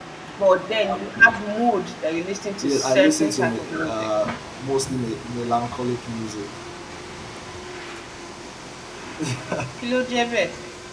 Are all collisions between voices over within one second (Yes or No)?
No